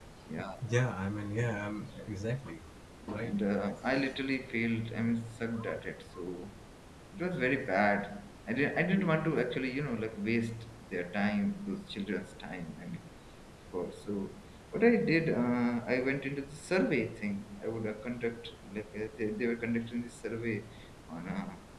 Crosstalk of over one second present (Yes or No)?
No